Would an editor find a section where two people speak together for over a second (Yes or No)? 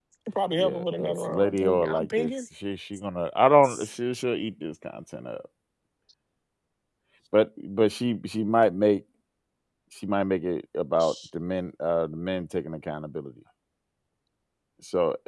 Yes